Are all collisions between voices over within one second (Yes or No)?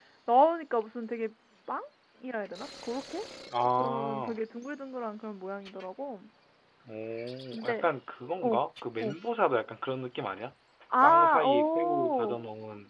No